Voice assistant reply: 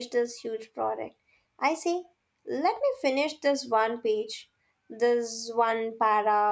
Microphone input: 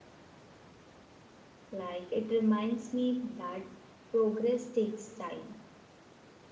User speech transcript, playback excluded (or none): Like it reminds me that progress takes time.